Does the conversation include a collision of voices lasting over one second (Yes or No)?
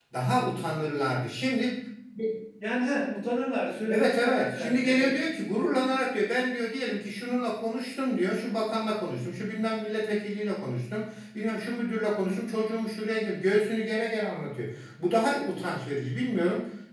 Yes